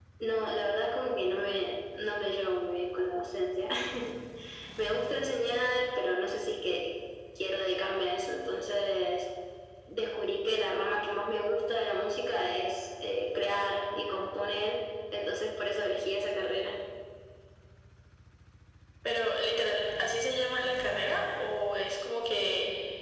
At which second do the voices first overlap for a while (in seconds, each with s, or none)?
none